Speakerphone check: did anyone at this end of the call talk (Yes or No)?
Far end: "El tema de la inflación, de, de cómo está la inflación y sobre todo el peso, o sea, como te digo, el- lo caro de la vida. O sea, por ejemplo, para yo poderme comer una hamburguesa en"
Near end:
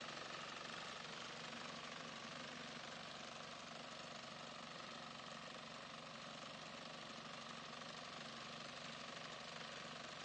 No